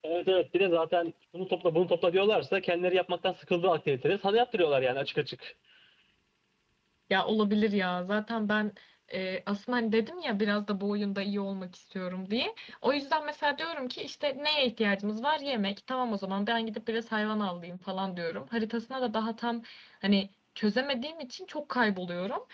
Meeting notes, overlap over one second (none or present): none